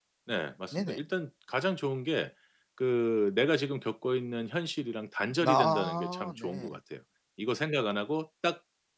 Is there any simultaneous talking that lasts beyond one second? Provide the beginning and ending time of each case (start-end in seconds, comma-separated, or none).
5.4-6.7